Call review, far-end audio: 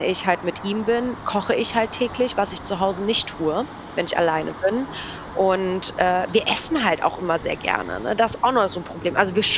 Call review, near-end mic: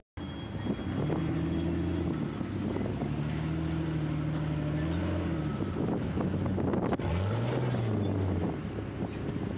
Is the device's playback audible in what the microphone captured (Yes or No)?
No